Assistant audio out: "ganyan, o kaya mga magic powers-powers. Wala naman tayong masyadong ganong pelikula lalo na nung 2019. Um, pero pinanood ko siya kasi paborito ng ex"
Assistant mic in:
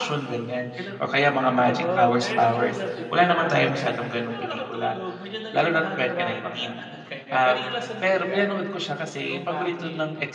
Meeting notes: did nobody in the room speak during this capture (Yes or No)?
No